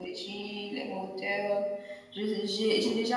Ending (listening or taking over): listening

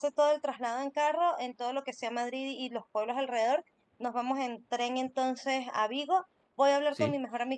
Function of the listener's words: listening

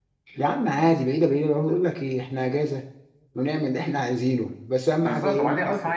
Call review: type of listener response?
taking over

